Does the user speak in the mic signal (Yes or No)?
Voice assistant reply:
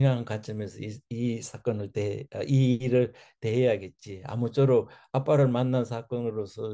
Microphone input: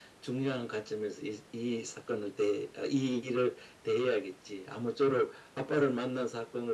No